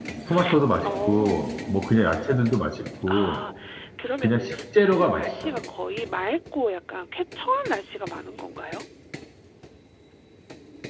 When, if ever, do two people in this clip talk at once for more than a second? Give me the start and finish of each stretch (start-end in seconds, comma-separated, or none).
4.2-5.5